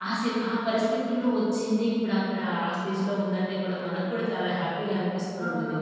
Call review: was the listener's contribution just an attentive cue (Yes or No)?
No